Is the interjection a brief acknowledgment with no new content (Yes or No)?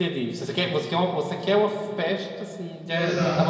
No